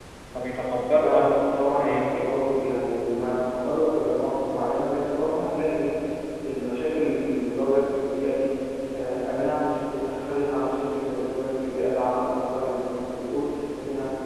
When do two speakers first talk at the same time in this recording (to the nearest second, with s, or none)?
1 s